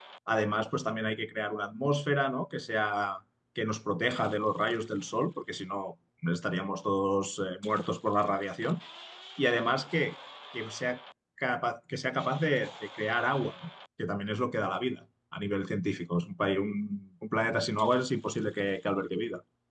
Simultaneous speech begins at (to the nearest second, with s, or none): none